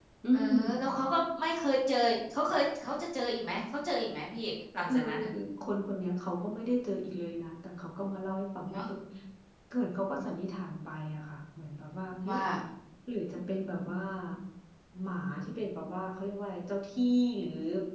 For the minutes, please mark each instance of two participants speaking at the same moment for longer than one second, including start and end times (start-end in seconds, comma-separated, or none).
none